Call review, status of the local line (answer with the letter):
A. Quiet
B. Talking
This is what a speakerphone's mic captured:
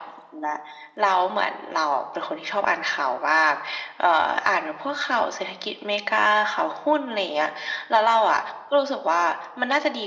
A